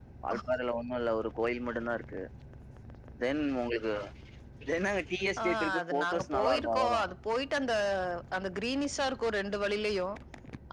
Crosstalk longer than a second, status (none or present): present